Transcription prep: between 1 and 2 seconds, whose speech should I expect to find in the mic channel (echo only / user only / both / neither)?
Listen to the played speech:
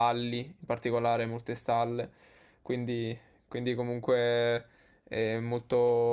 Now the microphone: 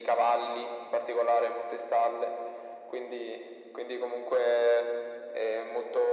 echo only